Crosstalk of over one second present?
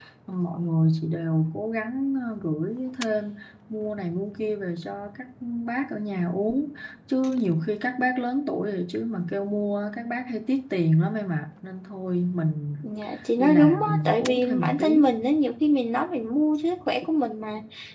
Yes, from 13.4 s

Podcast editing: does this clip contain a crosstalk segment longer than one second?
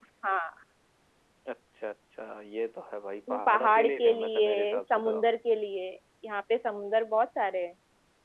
Yes, from 3.3 s

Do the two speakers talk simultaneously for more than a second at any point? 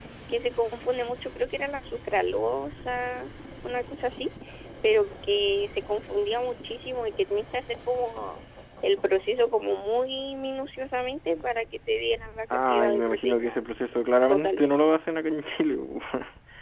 Yes, from 12.5 s

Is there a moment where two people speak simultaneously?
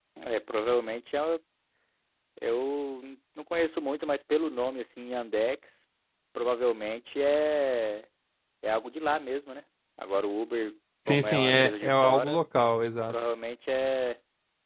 Yes, from 11.1 s

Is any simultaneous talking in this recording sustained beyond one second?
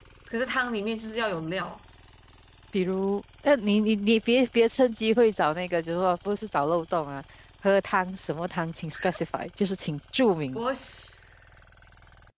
No

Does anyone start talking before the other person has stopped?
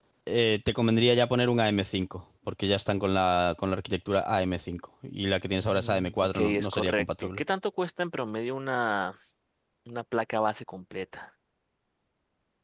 Yes, from 5.6 s

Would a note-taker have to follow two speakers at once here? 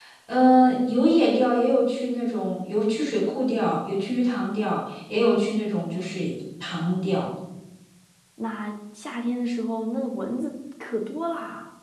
No

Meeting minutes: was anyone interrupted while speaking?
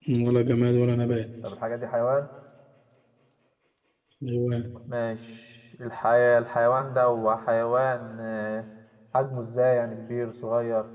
No

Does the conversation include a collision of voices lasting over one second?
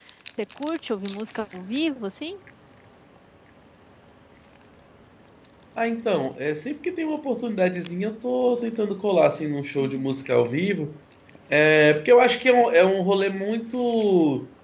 No

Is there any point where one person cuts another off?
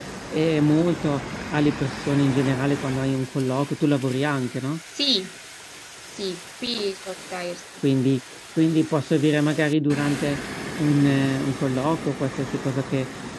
No

